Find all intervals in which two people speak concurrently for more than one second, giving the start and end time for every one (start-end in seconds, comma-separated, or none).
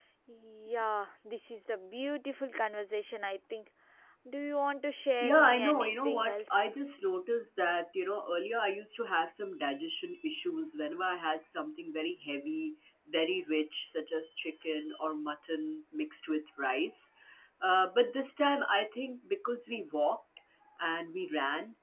5.2-6.7